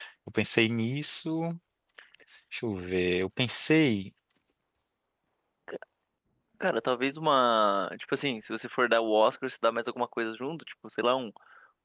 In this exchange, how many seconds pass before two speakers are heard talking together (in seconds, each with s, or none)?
none